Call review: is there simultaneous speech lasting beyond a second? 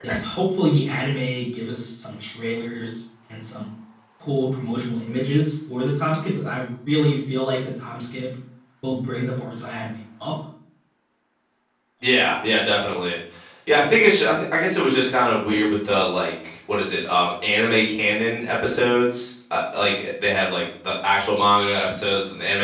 No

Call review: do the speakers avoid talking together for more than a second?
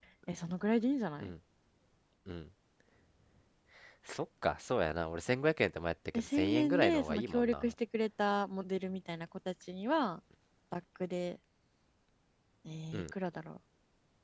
No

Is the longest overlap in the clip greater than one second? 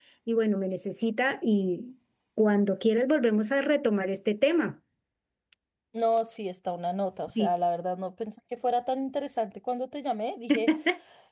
No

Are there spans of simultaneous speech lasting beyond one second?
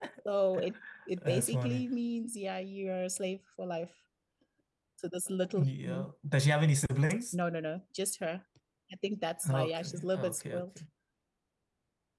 Yes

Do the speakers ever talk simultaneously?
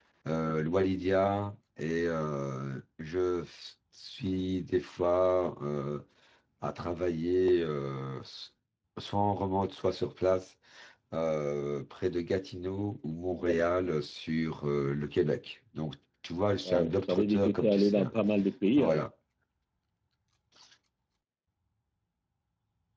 Yes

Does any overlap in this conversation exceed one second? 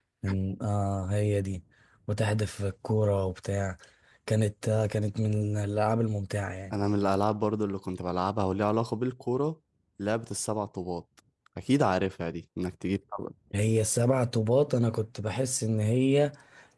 No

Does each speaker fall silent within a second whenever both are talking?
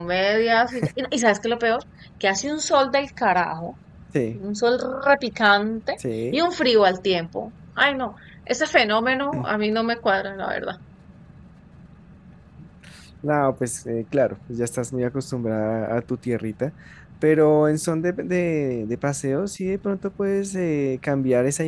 Yes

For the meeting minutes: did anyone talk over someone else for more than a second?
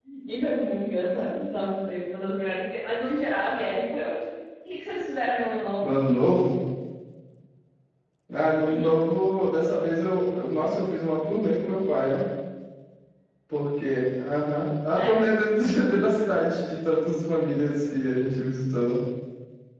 No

